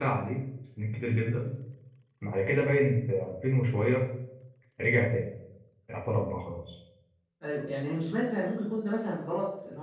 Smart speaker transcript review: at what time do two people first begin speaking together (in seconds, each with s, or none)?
none